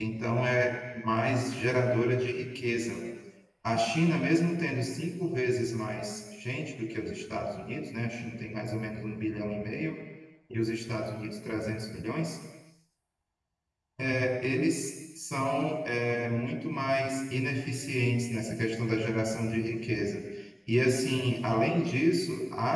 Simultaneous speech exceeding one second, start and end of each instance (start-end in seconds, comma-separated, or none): none